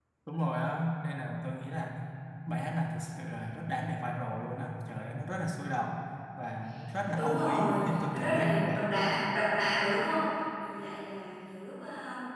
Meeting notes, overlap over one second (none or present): present